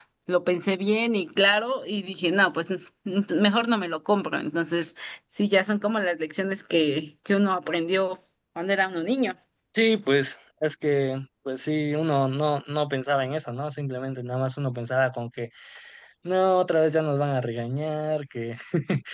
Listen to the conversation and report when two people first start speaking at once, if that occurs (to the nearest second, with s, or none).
none